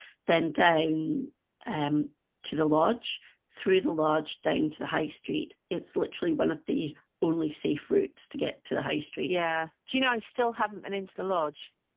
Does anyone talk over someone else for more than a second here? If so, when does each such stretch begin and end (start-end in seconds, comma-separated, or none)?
none